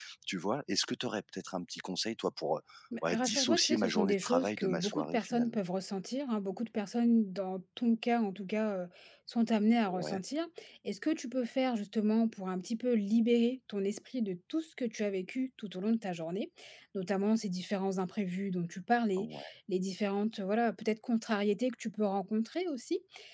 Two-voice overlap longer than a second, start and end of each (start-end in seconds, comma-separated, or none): 3.0-5.6